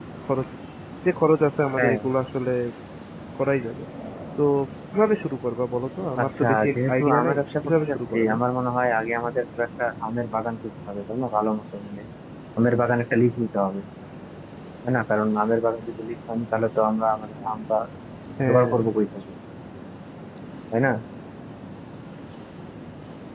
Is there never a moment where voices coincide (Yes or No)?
No